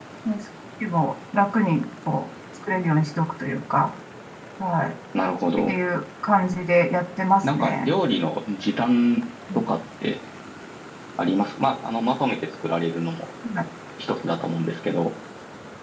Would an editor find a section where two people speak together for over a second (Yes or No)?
No